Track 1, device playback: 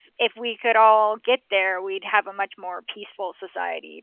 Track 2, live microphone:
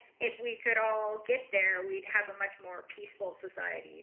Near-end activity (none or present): none